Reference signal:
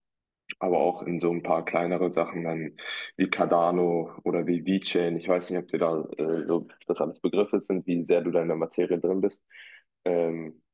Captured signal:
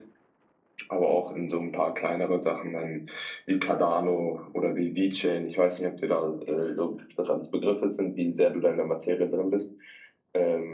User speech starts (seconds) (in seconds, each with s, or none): none